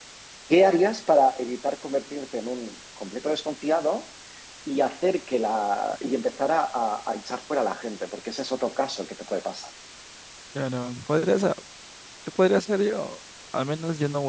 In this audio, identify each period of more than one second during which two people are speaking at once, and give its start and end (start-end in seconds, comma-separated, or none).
none